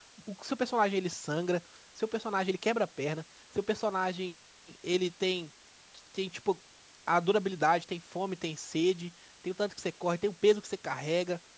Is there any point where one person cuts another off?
No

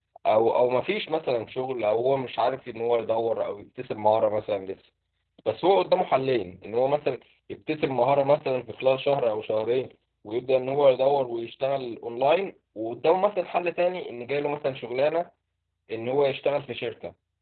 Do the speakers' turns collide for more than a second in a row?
No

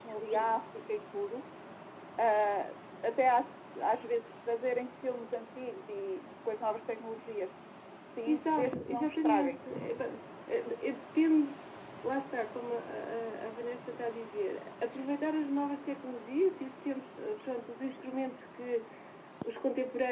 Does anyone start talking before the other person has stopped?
Yes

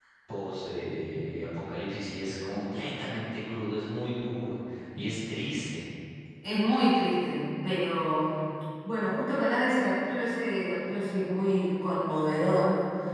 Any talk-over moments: No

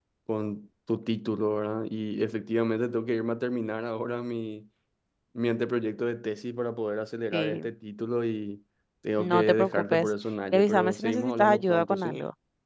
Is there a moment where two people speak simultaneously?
Yes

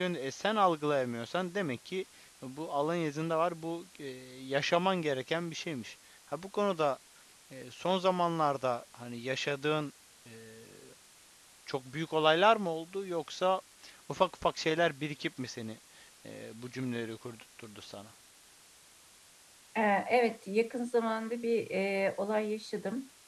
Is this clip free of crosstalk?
Yes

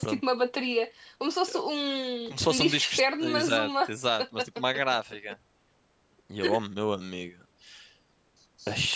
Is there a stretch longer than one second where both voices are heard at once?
Yes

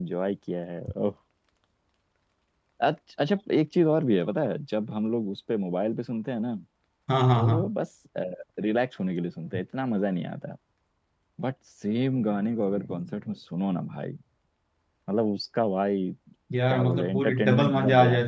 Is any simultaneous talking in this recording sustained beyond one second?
Yes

